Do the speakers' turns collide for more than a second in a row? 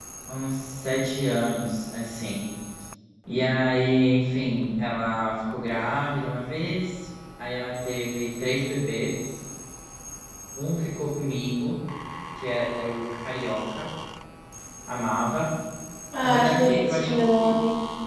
Yes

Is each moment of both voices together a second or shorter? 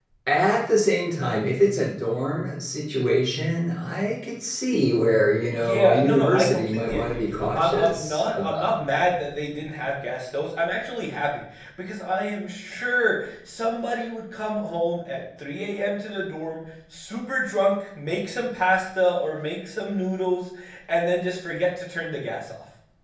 No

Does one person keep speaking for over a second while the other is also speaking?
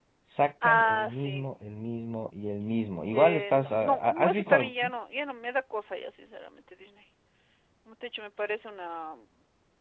Yes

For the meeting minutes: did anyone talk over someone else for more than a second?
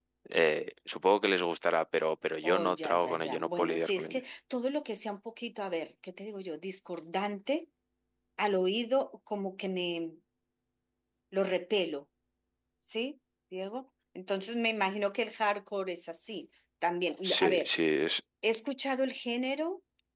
Yes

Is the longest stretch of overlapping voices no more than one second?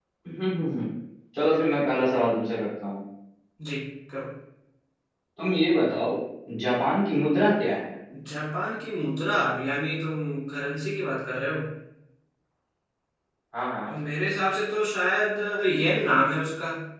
Yes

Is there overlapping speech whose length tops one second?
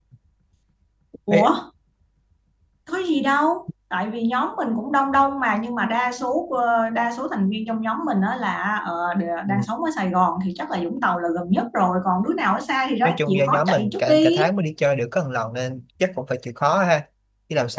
Yes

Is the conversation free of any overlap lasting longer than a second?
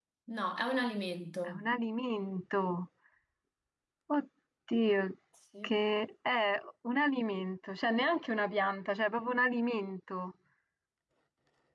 Yes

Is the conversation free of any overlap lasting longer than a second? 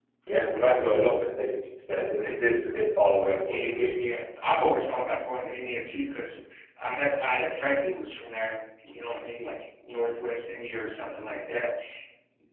Yes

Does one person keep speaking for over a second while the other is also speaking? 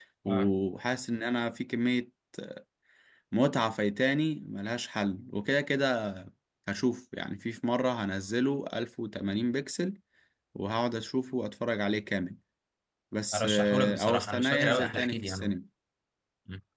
Yes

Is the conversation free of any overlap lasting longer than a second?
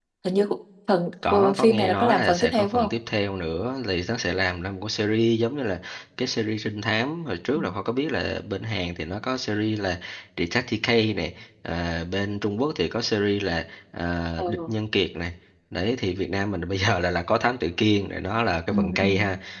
No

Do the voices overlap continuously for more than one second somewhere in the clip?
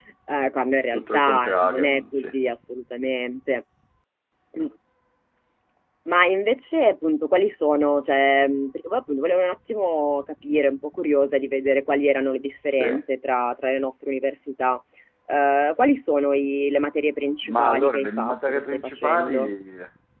Yes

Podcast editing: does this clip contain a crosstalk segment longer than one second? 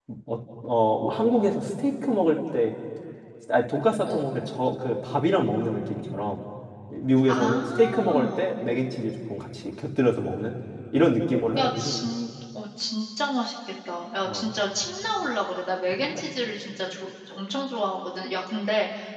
Yes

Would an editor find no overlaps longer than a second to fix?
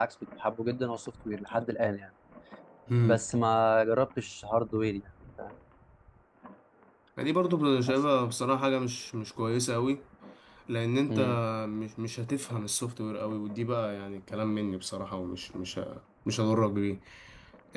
Yes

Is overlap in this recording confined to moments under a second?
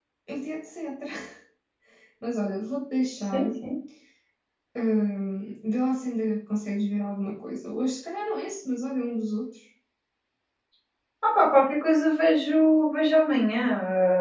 Yes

